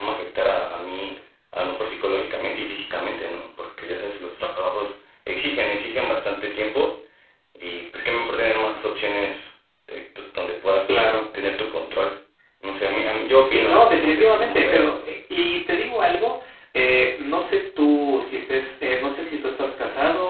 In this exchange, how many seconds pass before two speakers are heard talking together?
13.4 s

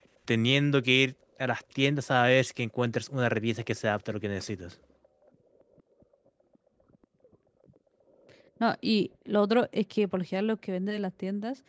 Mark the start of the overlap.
none

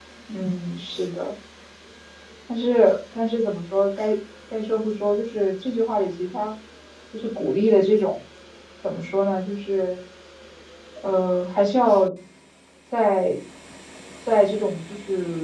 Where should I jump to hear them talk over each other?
none

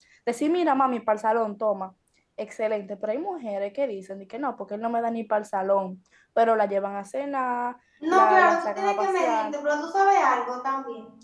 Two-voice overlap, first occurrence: 8.0 s

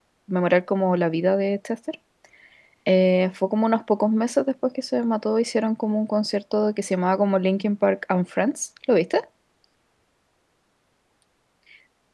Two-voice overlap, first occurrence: none

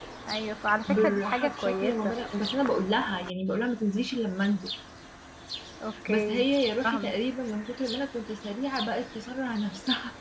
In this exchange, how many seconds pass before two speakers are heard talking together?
0.9 s

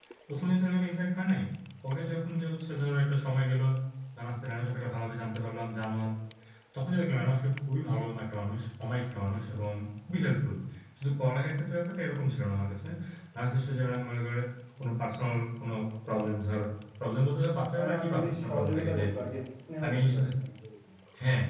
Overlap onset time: 17.8 s

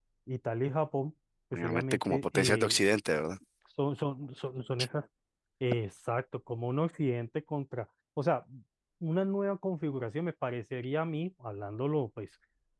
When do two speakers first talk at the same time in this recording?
1.5 s

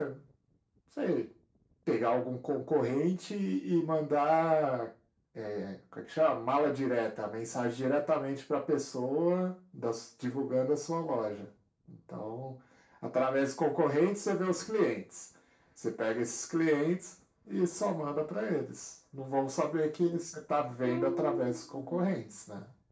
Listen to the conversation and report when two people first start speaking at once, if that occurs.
20.8 s

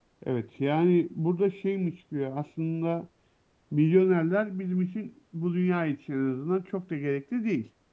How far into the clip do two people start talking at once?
none

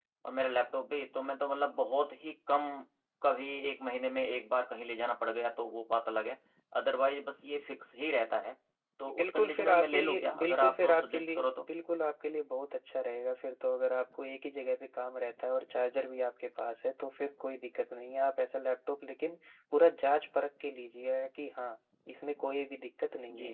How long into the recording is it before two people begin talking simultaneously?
9.2 s

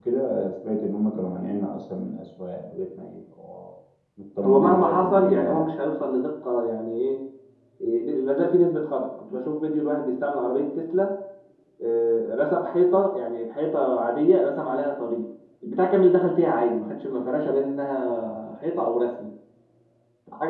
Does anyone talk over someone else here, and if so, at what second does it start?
4.4 s

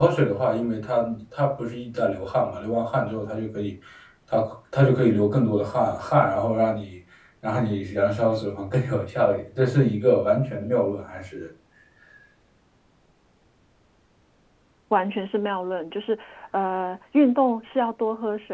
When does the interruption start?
none

